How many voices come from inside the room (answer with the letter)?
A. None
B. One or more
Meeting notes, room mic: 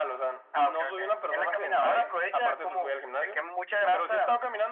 A